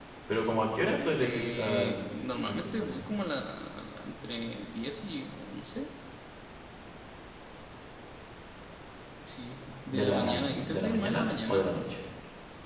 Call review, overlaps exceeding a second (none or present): present